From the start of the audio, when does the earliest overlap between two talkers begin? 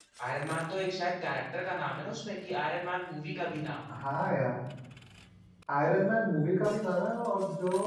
none

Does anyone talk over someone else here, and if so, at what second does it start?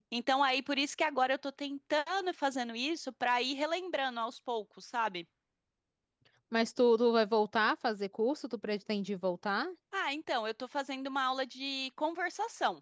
none

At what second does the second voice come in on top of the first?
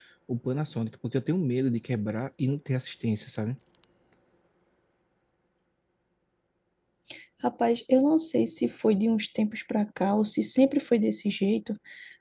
none

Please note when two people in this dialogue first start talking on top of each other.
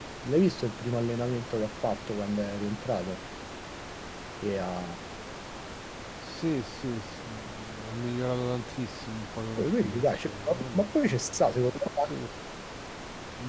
9.6 s

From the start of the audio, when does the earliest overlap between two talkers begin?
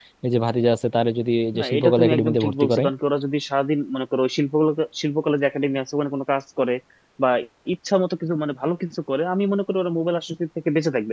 1.5 s

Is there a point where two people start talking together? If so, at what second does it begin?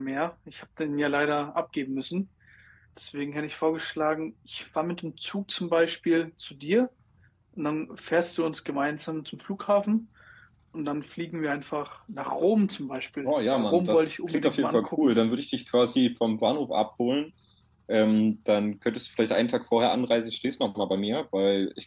13.2 s

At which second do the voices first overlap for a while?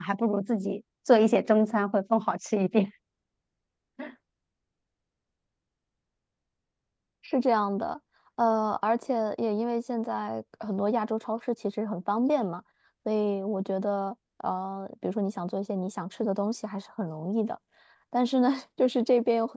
none

